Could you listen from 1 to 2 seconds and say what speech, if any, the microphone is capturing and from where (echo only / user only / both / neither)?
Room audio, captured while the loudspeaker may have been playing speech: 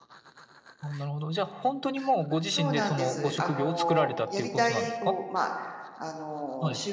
echo only